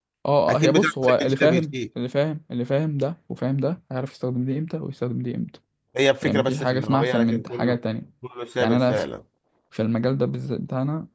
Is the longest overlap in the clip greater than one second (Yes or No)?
Yes